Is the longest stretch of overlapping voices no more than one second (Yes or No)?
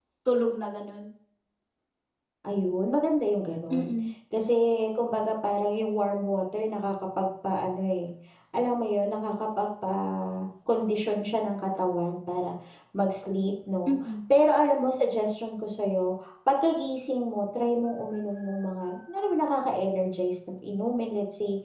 Yes